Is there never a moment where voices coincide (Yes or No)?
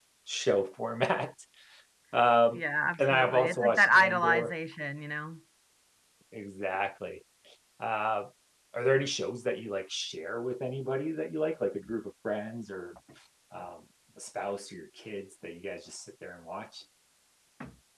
No